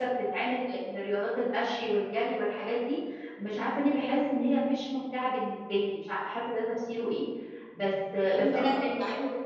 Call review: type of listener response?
taking over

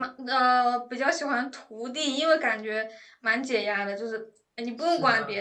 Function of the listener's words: listening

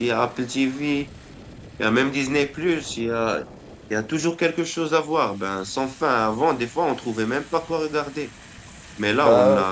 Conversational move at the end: listening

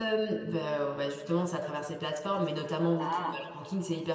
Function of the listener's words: listening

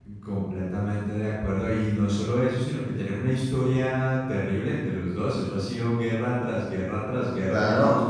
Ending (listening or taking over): taking over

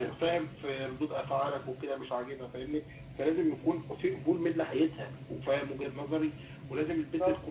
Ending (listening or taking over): listening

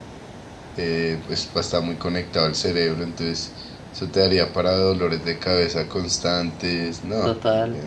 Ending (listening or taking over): taking over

